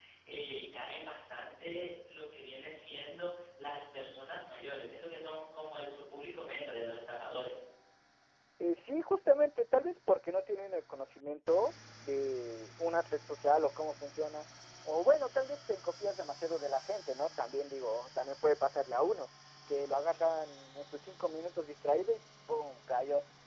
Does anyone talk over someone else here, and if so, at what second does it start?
none

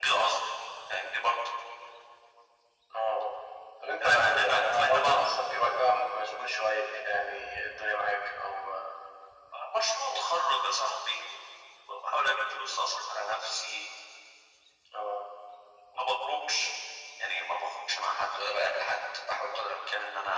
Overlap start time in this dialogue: 4.0 s

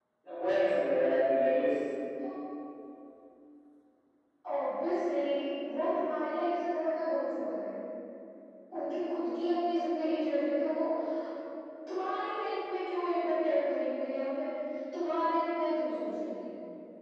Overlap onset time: none

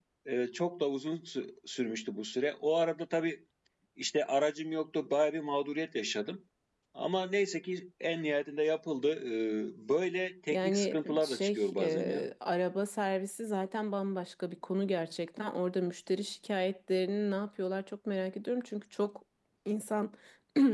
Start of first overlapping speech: 10.5 s

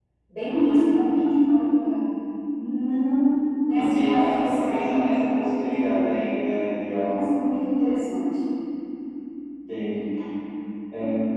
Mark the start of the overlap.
3.8 s

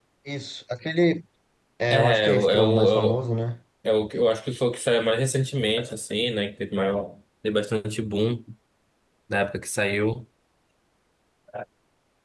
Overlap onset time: 1.9 s

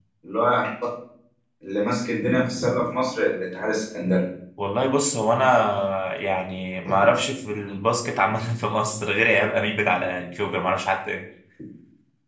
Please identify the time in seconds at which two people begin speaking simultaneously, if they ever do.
none

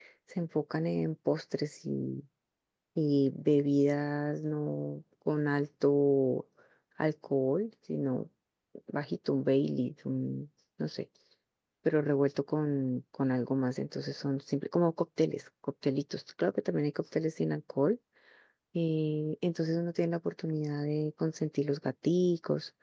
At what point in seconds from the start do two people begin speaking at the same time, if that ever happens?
none

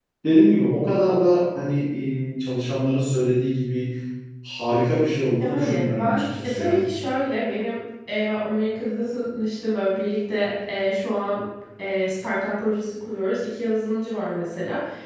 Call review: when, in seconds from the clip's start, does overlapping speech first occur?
5.4 s

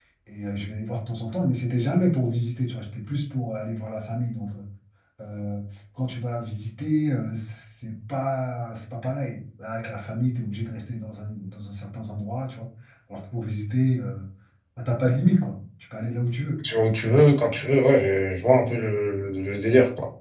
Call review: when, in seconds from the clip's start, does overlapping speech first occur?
none

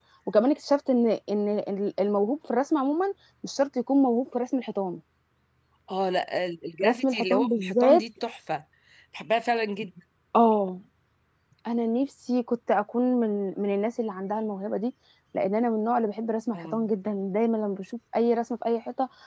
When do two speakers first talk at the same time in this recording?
6.8 s

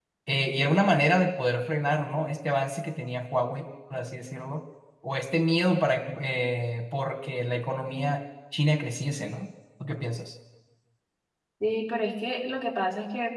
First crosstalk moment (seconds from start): none

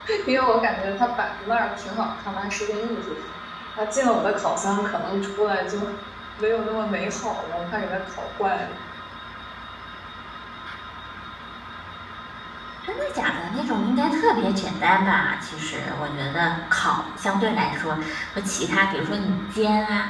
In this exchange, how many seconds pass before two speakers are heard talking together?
none

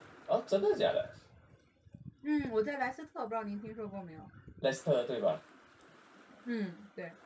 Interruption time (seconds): none

